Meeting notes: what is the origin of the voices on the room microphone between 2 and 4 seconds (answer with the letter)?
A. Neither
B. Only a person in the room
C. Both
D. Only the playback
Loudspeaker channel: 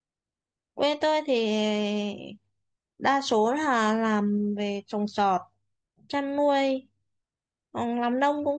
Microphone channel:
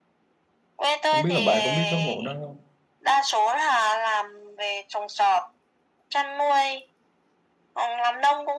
C